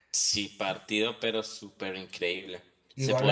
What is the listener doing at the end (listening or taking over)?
listening